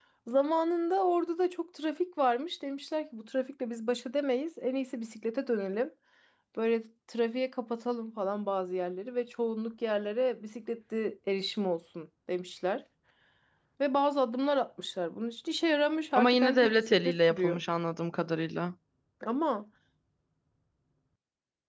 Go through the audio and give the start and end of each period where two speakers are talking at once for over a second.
16.1-17.6

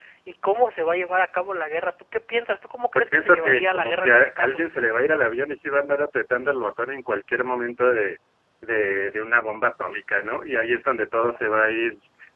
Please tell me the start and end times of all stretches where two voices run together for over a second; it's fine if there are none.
3.0-4.6

